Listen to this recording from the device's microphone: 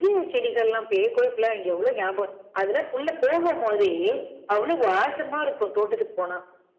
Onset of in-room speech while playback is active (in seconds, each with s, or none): none